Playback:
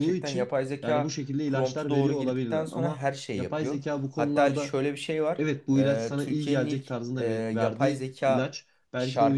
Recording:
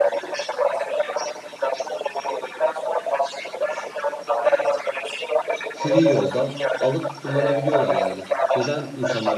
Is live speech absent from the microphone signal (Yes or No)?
No